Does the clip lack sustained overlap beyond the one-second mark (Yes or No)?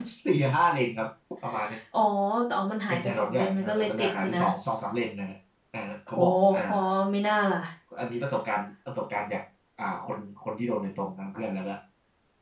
No